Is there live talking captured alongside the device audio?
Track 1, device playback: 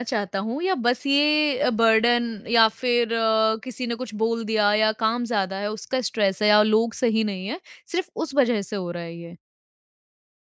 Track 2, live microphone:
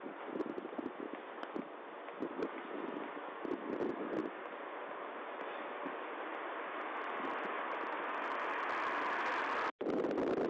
No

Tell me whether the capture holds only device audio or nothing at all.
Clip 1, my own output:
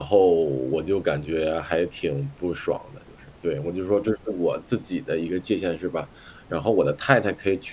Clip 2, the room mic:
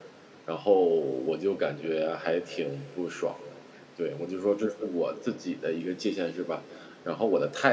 Yes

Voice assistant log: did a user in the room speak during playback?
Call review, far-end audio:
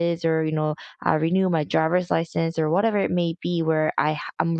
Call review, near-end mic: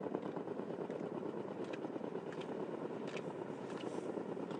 No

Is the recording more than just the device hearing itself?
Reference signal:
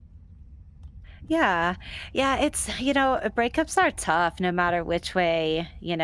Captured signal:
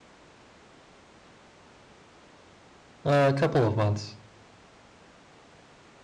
Yes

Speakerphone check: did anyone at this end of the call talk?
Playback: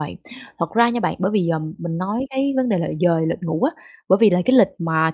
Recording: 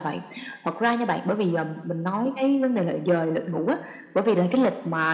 No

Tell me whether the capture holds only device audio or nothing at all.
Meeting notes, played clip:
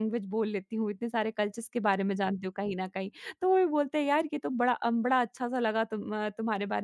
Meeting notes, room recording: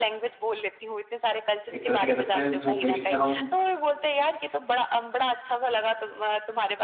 No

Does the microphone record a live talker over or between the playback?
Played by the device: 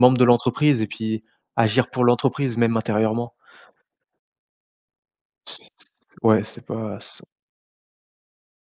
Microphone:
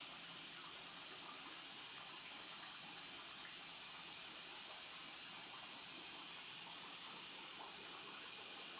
No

